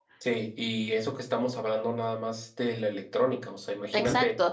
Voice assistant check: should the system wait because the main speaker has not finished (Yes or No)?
No